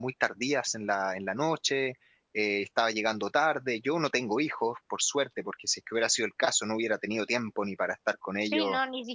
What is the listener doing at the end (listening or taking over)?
taking over